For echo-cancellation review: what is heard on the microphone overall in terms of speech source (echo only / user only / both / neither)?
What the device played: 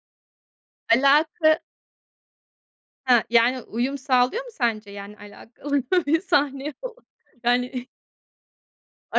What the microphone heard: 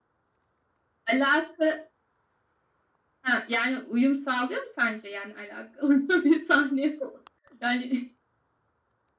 echo only